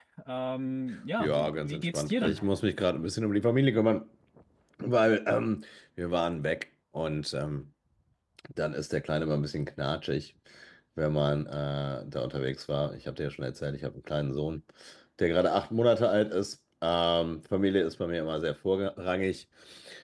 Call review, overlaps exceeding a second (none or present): present